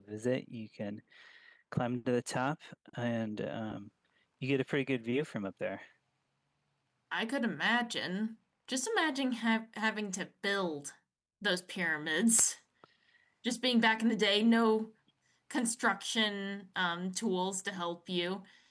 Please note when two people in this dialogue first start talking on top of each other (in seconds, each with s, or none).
none